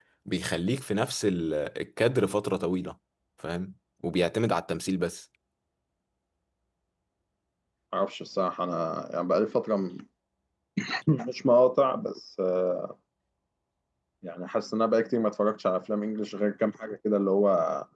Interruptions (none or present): none